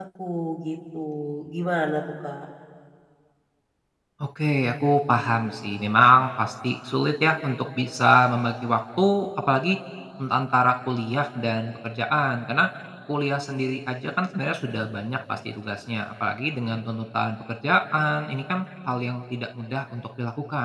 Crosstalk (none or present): none